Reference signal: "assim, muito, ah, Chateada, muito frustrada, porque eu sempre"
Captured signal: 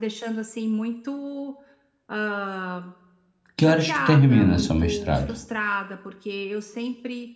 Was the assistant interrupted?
Yes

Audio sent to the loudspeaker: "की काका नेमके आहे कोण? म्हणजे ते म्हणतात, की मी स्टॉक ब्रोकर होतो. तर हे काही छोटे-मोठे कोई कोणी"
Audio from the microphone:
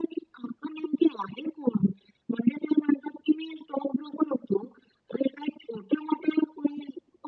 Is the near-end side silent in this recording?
Yes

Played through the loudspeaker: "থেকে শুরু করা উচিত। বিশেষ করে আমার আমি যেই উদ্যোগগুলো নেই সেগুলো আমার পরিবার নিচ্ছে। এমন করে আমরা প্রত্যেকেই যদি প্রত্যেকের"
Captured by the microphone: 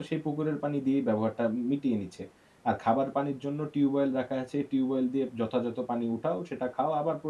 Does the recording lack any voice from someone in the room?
No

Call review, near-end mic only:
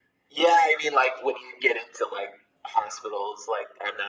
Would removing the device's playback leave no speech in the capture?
Yes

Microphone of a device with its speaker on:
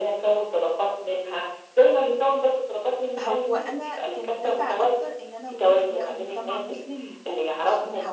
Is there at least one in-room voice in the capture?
Yes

